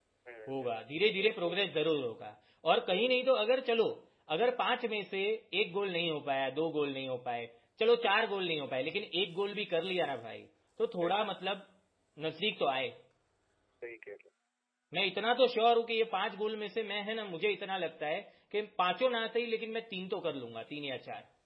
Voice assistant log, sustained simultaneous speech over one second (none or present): present